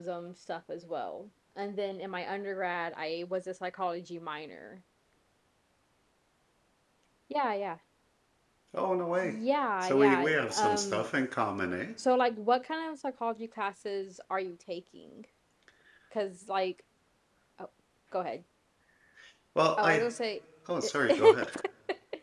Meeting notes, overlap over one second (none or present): present